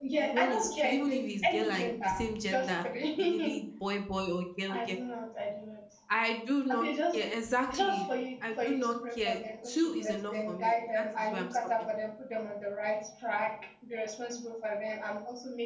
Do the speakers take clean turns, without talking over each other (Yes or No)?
No